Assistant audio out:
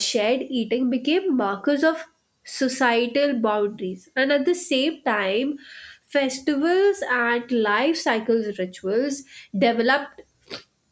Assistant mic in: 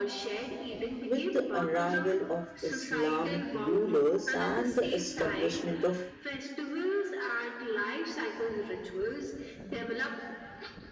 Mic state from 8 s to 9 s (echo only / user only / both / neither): echo only